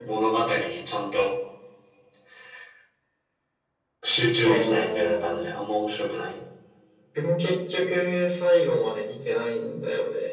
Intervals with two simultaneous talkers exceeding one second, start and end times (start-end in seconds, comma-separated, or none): 4.4-5.6